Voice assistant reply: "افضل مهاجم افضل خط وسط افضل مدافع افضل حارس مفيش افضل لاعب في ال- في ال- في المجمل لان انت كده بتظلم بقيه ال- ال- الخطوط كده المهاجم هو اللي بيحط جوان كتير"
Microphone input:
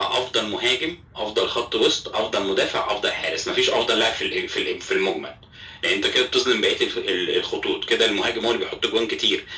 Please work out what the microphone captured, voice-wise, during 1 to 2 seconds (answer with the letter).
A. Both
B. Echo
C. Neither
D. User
B